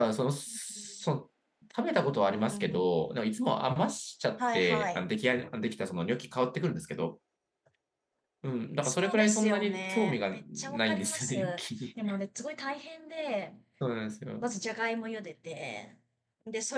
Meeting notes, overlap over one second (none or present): present